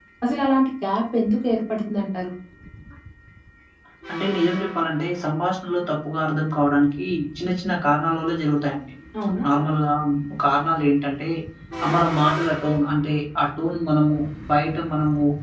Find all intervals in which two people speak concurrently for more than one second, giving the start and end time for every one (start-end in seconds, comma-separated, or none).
none